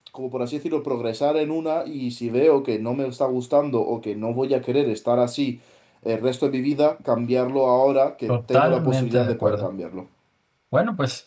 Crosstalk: present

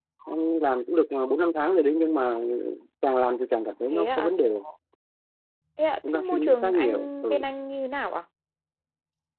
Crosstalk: present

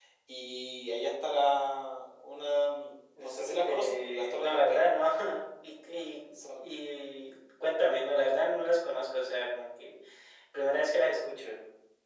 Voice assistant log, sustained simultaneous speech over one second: present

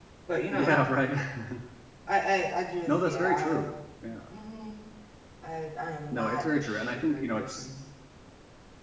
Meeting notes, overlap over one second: present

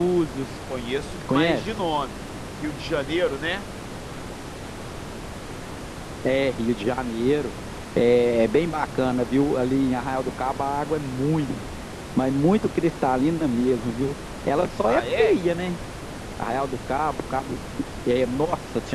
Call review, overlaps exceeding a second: none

